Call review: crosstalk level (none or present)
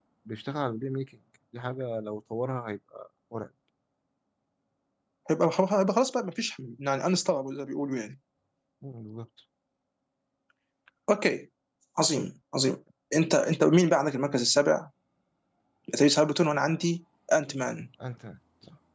none